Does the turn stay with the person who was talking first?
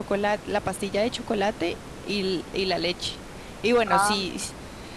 Yes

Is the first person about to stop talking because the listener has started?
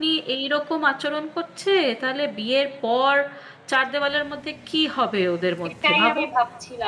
Yes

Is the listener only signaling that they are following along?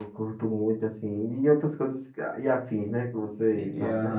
No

